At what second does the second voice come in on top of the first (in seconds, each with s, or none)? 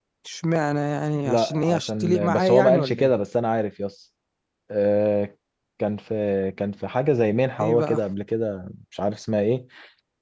1.2 s